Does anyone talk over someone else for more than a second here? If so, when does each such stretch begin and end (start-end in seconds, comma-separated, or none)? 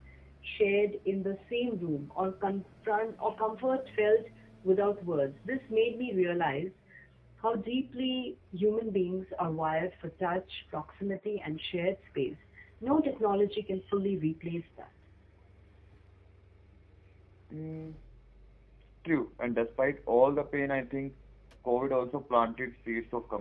none